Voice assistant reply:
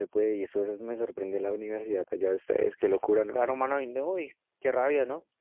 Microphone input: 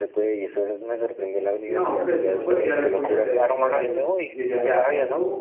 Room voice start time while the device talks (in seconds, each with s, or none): 1.6 s